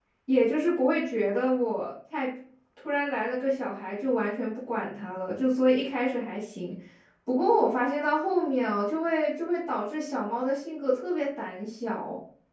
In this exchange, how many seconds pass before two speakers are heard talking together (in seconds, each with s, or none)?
none